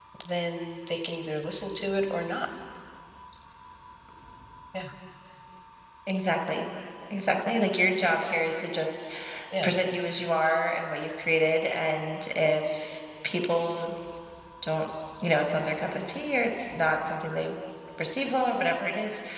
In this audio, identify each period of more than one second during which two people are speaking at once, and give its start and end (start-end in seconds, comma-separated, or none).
none